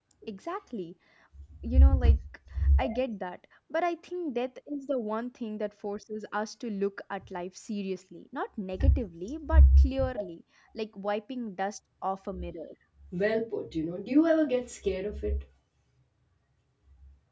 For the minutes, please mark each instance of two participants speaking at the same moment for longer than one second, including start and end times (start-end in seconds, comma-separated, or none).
none